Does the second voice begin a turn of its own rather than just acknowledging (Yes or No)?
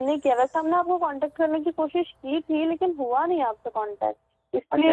Yes